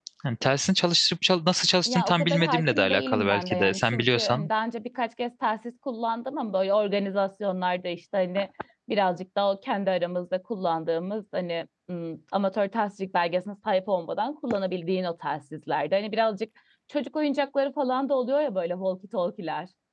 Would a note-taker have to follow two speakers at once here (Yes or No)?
Yes